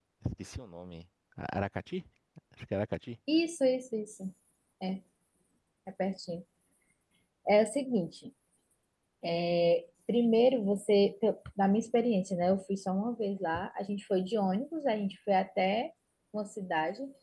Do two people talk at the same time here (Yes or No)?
No